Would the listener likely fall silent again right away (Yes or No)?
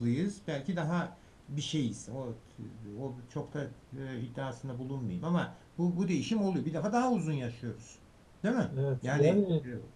No